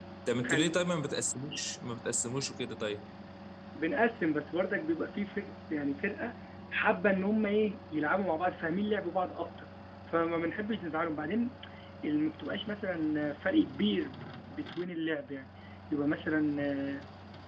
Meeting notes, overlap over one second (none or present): none